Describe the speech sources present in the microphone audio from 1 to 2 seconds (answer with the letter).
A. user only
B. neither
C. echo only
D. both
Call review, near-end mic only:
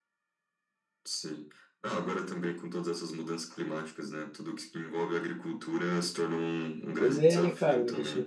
C